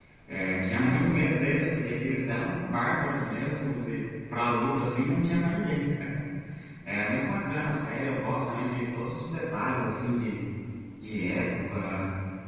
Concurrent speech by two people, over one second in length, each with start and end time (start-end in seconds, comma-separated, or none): none